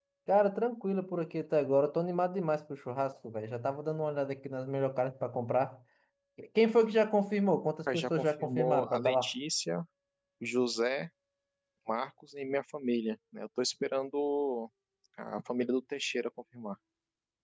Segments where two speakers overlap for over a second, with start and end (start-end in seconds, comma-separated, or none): 7.9-9.3